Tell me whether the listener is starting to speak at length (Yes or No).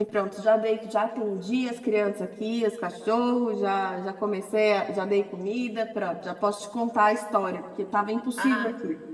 Yes